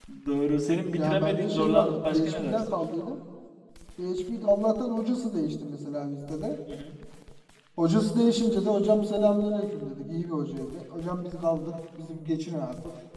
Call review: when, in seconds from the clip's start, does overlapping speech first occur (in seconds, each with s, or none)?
1.0 s